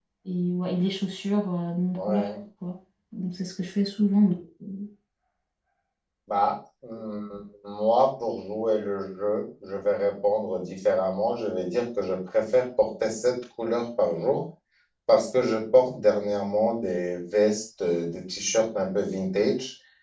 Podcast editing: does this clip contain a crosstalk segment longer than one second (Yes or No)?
No